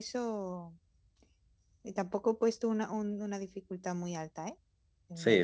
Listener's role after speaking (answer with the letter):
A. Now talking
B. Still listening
A